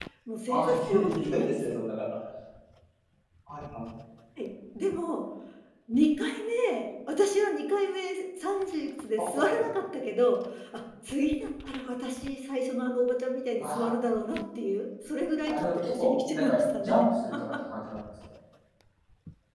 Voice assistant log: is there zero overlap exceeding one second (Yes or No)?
No